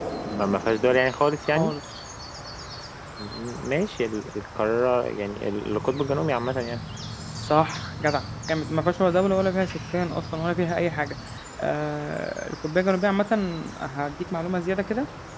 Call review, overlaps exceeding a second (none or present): none